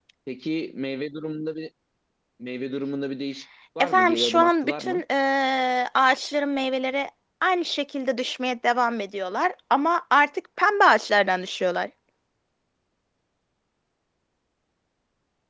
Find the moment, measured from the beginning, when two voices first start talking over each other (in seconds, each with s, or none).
3.8 s